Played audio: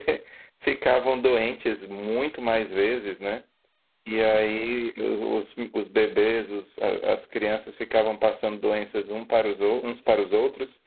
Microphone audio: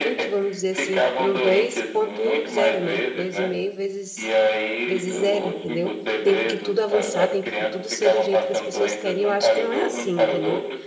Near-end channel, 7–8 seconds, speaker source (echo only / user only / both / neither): both